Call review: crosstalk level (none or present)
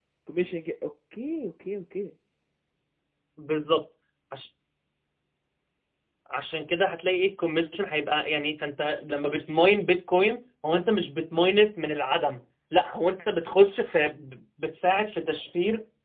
none